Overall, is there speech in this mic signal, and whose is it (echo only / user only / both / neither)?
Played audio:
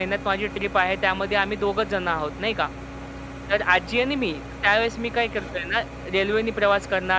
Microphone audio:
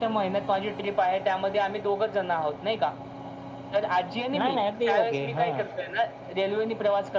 both